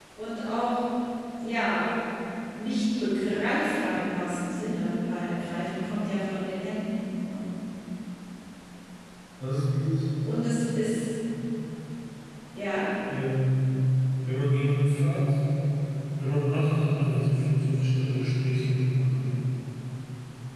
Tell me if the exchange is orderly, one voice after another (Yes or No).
Yes